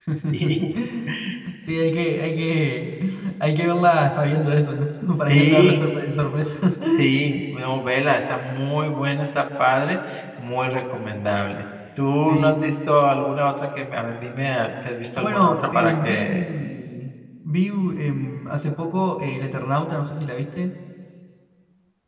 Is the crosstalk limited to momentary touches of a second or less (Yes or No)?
No